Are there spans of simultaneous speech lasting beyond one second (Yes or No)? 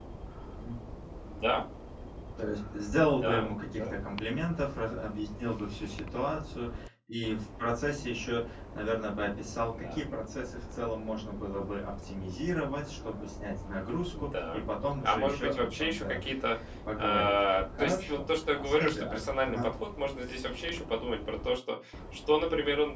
Yes